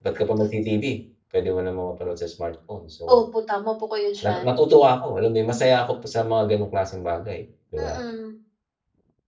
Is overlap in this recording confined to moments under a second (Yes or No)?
Yes